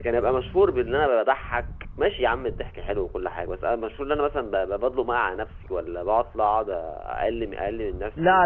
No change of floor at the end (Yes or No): No